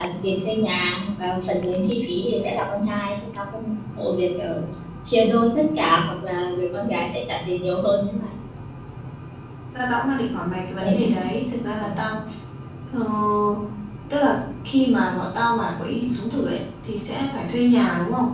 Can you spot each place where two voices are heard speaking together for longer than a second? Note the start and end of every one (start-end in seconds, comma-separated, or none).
none